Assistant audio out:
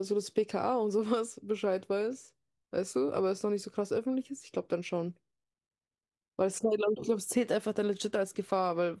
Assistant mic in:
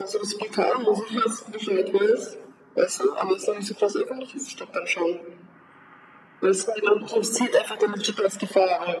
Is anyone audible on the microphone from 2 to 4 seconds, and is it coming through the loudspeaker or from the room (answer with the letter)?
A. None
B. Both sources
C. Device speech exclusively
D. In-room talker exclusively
C